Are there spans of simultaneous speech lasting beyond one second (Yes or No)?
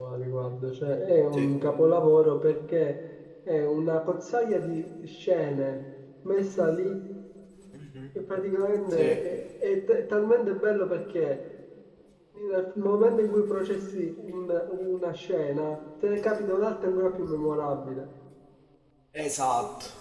No